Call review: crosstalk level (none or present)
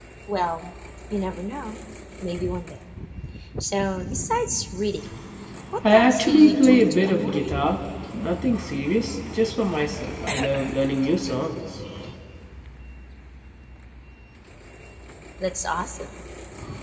present